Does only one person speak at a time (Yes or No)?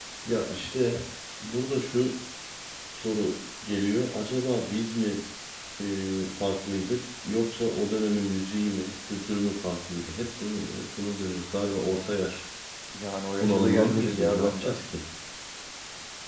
No